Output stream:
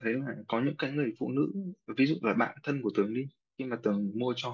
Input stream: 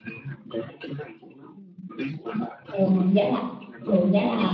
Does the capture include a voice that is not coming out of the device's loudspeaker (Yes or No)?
Yes